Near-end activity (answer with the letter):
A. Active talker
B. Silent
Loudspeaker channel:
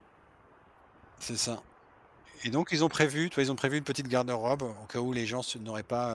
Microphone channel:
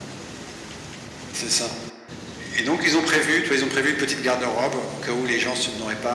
B